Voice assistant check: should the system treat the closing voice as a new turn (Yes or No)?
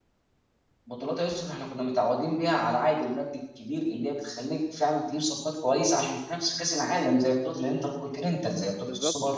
No